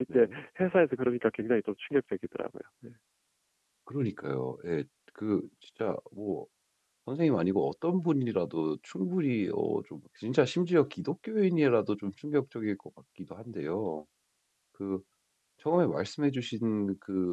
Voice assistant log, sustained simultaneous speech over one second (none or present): none